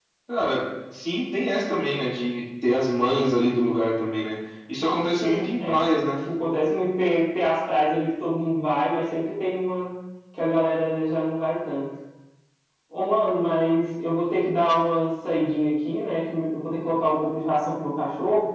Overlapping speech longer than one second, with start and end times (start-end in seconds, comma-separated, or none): 4.8-6.1